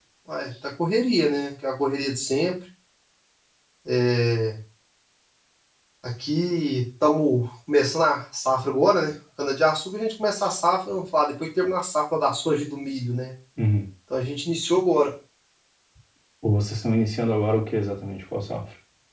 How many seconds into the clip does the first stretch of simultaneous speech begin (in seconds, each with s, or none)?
none